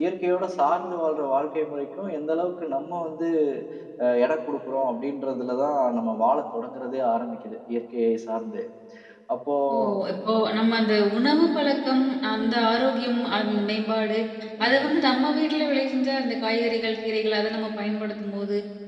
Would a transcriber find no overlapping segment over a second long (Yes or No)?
Yes